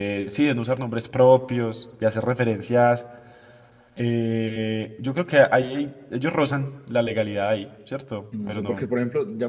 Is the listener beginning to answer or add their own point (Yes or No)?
Yes